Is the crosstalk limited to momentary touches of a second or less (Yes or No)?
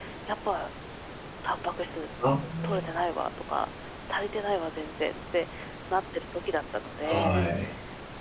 Yes